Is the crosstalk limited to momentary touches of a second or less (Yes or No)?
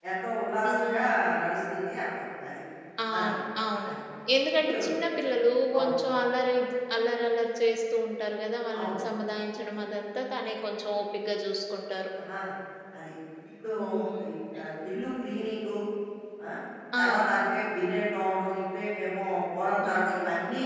Yes